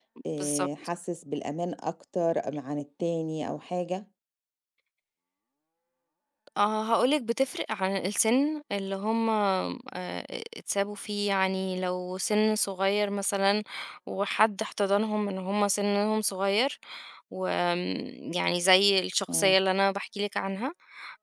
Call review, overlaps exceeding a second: none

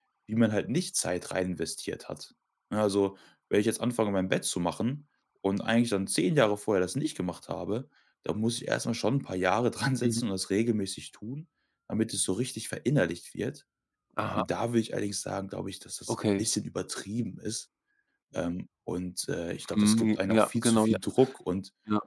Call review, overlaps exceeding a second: present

